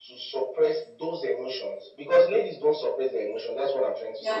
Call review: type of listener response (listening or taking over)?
taking over